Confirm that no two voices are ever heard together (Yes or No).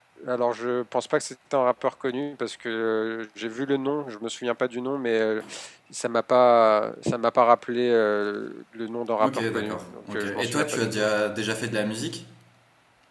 No